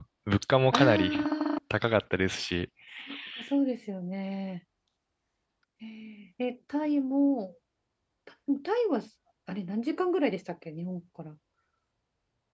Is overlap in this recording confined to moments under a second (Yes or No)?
Yes